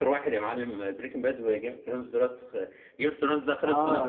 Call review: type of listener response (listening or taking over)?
taking over